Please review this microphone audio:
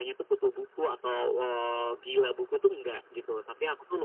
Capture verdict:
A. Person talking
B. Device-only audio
B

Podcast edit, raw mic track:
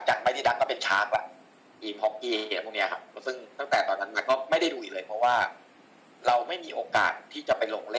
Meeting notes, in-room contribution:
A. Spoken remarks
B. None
B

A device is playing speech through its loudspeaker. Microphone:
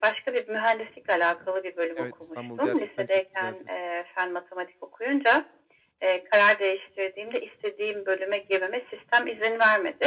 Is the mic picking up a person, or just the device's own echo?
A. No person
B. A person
B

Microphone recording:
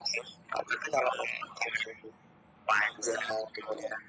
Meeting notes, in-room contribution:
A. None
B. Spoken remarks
B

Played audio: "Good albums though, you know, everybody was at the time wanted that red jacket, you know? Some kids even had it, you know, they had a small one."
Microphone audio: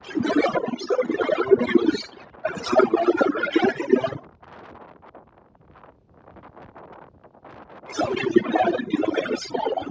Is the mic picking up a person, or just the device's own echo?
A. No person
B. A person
A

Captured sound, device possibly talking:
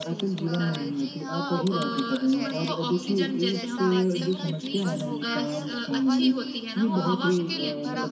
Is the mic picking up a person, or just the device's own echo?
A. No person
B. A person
B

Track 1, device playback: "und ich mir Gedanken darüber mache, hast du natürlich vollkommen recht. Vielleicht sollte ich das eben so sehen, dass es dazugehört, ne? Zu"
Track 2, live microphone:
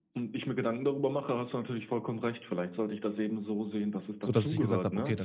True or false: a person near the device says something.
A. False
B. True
B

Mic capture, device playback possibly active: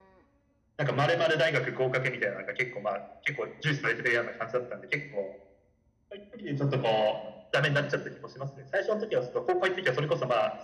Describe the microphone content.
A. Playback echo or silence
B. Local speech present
A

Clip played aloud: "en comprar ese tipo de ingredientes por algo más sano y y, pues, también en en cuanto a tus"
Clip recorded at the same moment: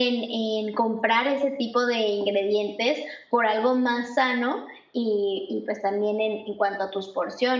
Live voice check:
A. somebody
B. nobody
B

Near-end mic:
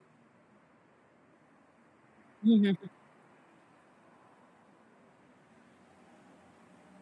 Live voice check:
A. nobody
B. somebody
B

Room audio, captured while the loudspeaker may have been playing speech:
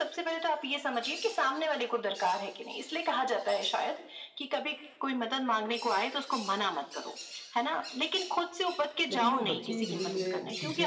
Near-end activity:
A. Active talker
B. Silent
A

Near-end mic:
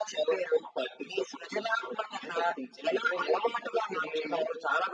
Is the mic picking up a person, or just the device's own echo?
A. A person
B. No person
B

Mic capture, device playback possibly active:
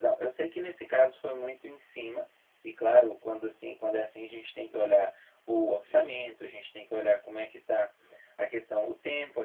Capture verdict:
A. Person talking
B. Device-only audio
A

